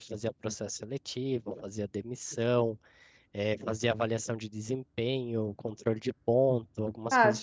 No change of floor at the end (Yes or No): No